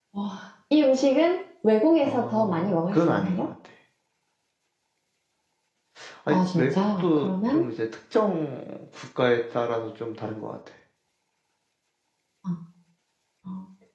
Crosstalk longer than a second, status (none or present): present